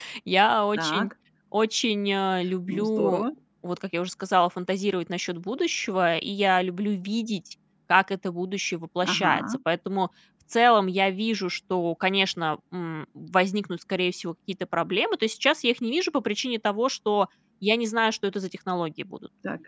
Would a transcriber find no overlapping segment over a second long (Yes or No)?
Yes